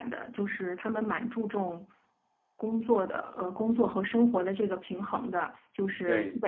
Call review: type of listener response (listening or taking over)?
listening